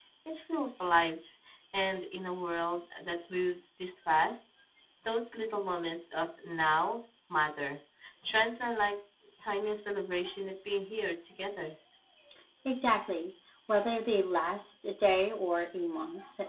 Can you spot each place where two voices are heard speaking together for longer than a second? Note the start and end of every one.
none

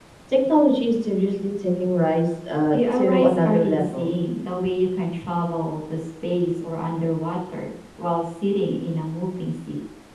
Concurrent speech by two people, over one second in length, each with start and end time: 2.7-4.1

